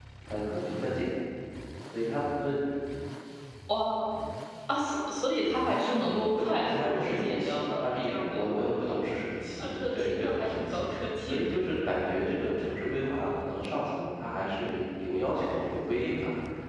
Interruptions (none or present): present